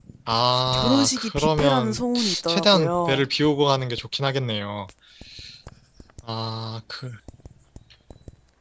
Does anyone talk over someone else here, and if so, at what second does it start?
1 s

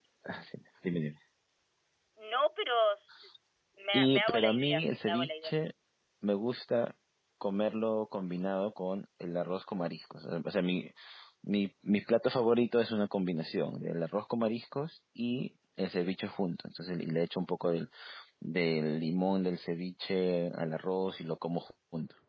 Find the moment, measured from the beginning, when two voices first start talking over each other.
4 s

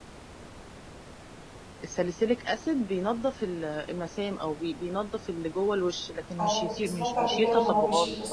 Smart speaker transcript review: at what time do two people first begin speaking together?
6 s

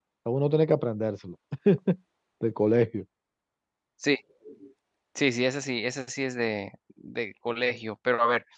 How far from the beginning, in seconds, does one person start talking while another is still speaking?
none

